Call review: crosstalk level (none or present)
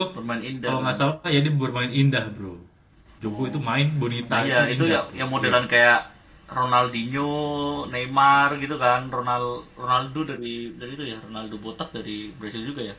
present